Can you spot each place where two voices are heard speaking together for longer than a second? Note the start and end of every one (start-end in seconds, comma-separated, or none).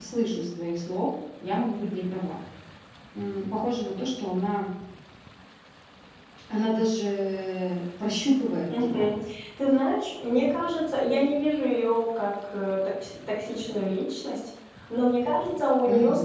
none